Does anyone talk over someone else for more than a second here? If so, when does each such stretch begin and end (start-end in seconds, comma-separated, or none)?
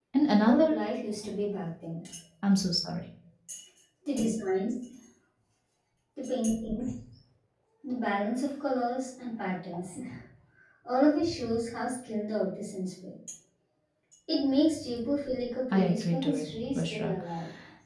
15.7-17.1